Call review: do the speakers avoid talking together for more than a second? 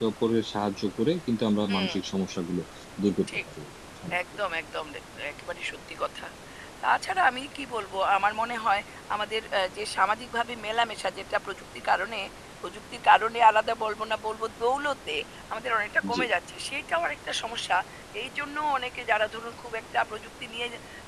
Yes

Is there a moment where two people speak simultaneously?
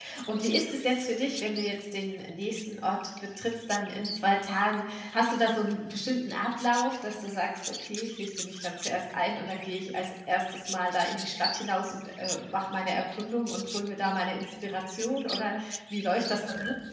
No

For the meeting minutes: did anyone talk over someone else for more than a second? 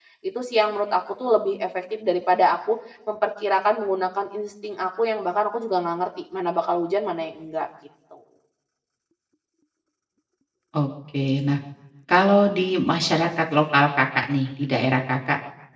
No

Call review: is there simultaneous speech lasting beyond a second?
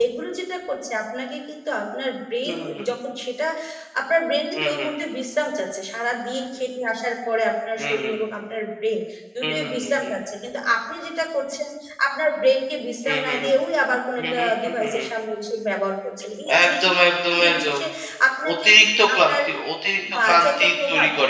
Yes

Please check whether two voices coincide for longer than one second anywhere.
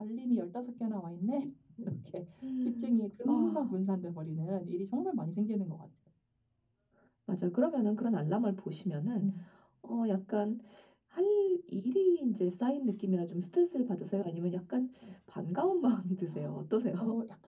No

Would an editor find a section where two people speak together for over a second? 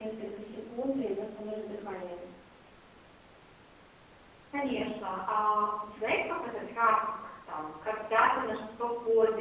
No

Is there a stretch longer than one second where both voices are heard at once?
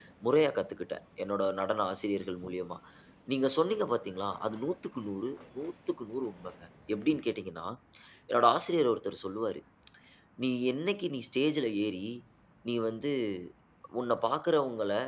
No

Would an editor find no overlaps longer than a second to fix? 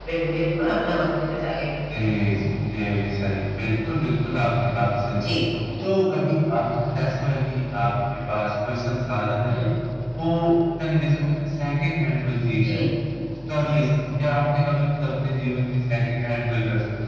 Yes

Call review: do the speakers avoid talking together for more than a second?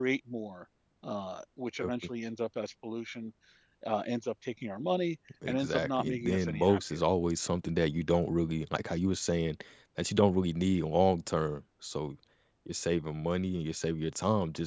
No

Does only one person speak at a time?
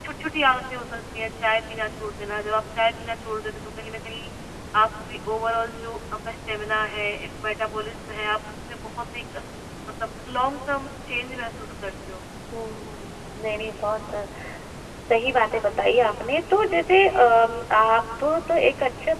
Yes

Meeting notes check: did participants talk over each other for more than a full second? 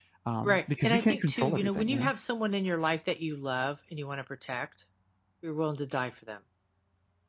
Yes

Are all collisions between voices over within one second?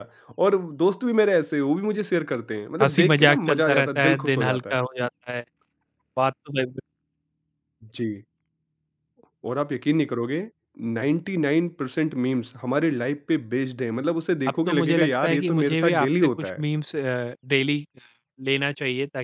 No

